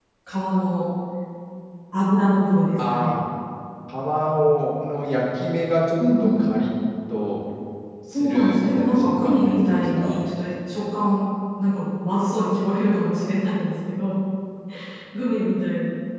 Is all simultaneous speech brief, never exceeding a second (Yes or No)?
No